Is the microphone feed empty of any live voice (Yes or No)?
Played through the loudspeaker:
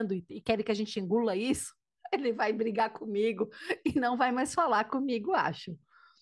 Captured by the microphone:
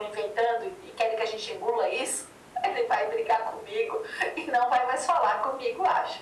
Yes